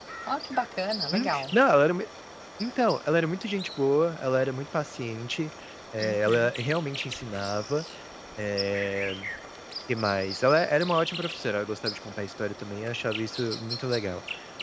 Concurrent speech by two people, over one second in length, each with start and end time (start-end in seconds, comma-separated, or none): none